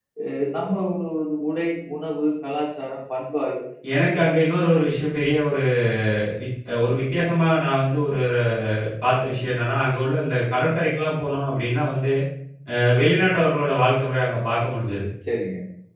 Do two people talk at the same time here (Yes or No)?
No